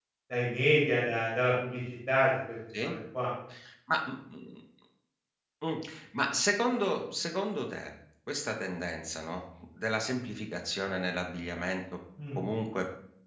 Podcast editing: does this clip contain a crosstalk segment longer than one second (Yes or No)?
No